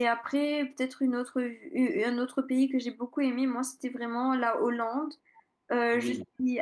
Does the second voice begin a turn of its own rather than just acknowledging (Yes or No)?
No